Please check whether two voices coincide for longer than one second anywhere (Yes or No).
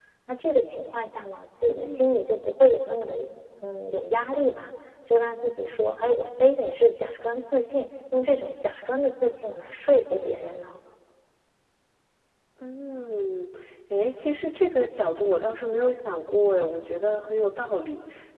No